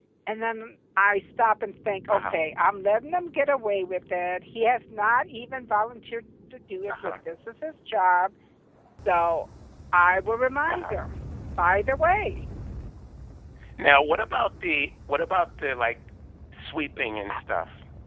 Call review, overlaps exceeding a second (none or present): none